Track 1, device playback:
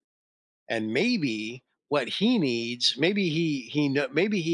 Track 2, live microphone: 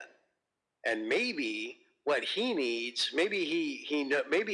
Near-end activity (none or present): none